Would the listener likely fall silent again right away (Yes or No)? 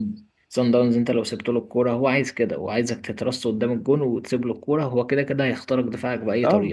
No